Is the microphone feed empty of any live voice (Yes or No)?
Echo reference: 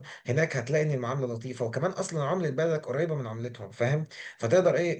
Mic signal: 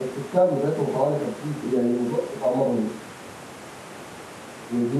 No